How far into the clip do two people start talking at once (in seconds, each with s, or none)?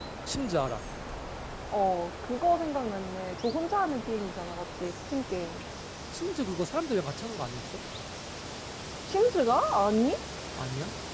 none